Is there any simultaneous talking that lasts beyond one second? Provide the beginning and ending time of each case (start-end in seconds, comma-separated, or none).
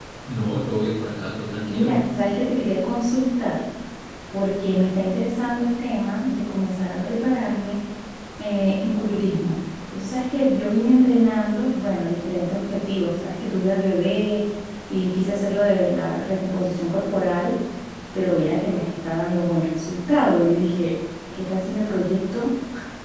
none